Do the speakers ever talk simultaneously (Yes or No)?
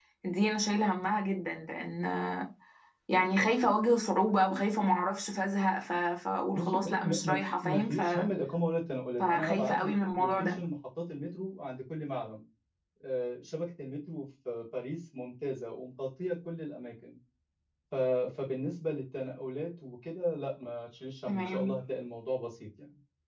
Yes